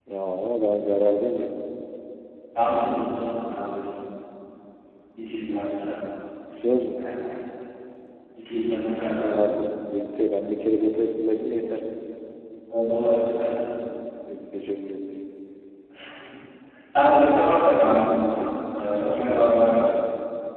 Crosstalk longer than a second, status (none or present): none